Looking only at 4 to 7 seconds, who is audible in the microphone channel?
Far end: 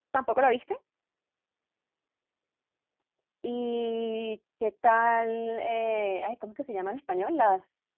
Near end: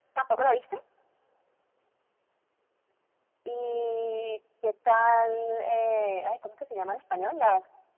echo only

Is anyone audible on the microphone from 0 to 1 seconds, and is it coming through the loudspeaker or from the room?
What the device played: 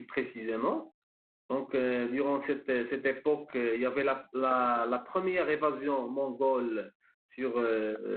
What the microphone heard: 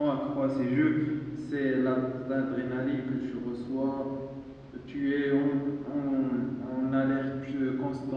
user only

